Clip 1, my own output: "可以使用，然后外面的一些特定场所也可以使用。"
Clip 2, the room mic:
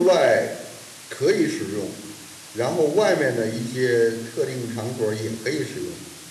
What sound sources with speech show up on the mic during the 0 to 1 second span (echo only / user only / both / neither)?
echo only